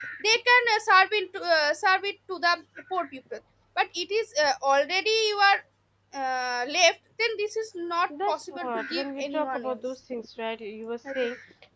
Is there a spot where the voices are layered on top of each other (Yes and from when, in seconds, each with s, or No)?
Yes, from 8.3 s